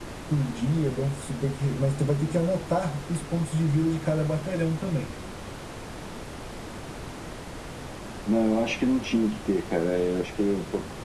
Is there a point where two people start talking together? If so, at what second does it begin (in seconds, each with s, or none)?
none